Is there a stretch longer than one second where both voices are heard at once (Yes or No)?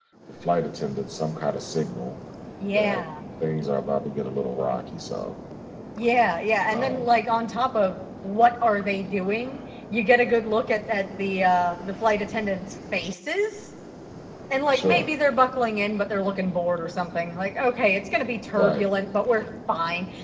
No